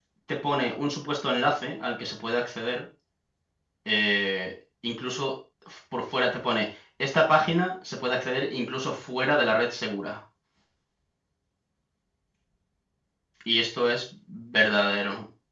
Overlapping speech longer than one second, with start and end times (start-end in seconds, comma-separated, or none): none